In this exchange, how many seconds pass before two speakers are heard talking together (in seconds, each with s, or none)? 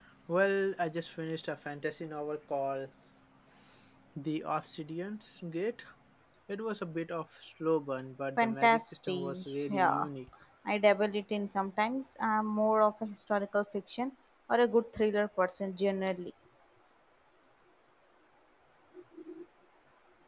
8.4 s